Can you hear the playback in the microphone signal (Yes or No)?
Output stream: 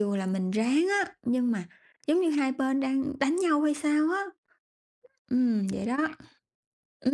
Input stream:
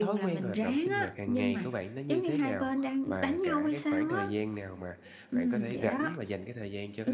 Yes